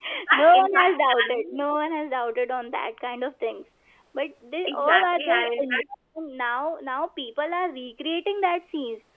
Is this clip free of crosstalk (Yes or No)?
No